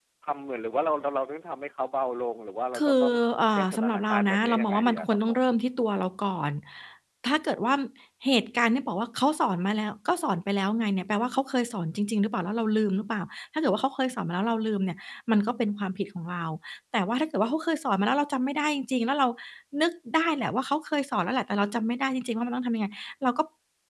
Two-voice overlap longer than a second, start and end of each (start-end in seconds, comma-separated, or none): 3.6-5.4